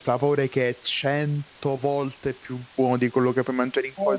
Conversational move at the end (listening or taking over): taking over